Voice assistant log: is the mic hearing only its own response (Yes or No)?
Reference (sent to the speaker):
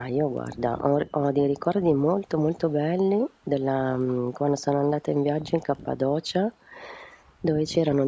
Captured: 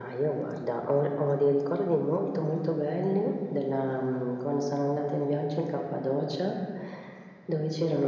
Yes